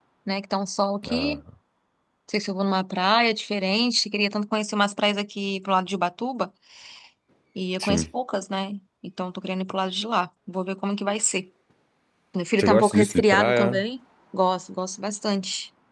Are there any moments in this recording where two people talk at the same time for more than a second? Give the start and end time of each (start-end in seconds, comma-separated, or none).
12.6-13.8